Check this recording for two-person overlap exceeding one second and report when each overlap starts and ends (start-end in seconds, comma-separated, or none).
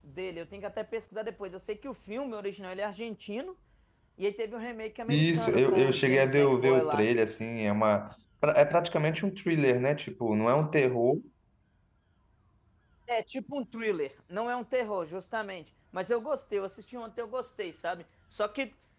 5.1-7.1